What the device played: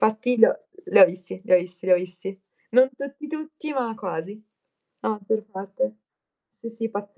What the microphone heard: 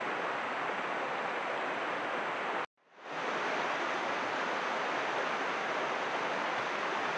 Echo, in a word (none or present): none